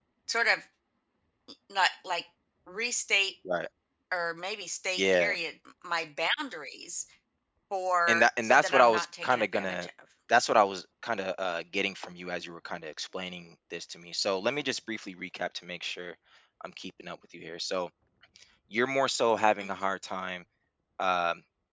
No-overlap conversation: No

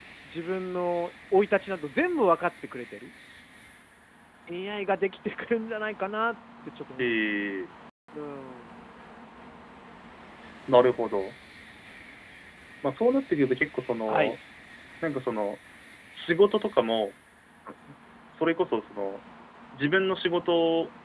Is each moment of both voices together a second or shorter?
Yes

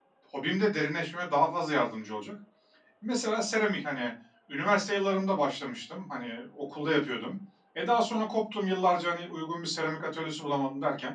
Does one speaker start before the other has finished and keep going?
No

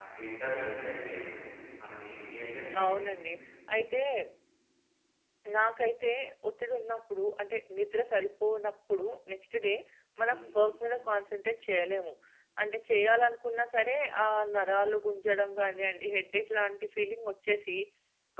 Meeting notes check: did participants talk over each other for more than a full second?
No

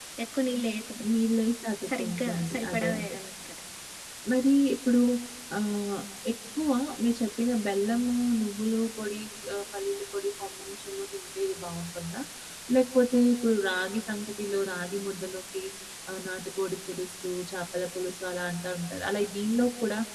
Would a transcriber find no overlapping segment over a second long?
No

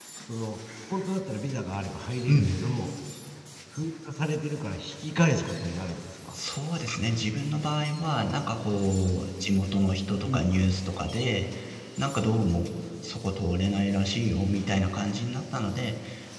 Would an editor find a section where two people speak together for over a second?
No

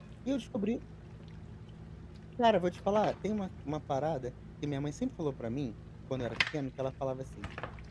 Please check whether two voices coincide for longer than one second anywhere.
No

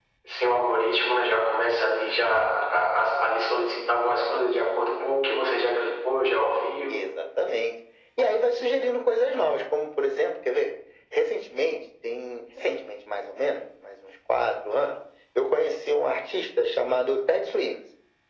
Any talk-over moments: No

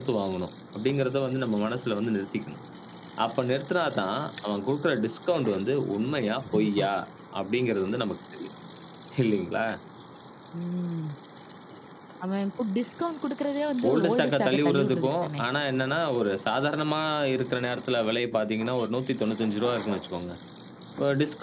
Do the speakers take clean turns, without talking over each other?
No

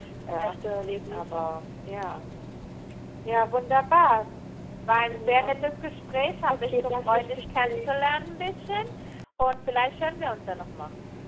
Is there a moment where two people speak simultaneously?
Yes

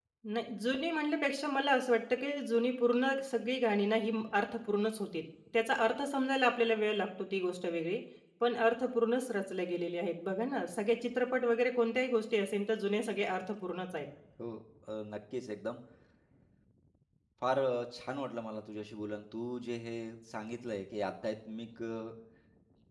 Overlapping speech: No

